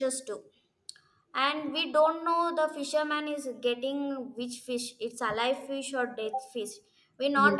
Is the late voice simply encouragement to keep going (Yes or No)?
Yes